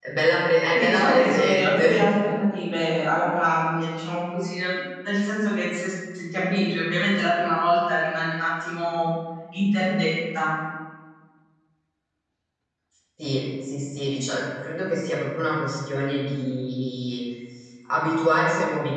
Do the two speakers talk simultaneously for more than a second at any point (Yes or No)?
Yes